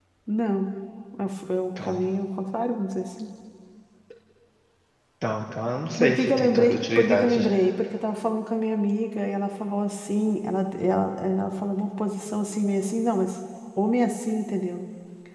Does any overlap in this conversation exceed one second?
Yes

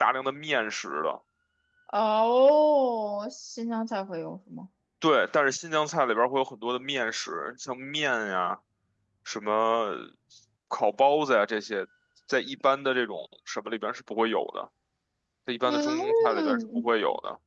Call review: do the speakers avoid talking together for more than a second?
No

